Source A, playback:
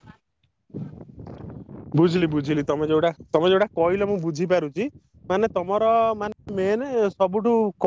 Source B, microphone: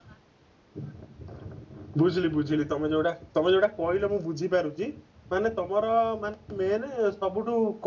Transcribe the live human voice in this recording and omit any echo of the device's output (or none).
none